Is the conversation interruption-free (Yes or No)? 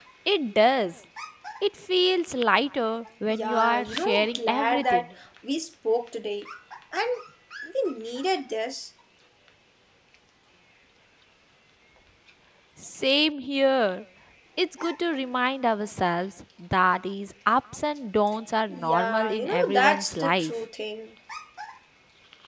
No